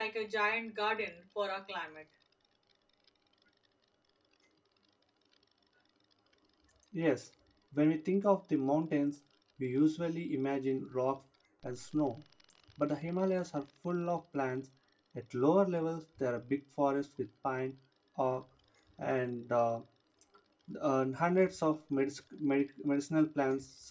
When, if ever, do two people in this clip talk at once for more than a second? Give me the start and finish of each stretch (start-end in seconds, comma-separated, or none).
none